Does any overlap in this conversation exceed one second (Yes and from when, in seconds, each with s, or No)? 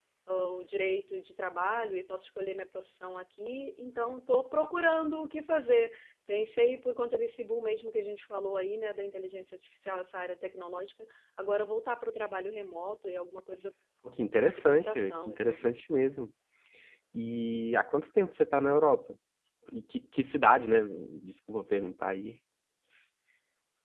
Yes, from 14.4 s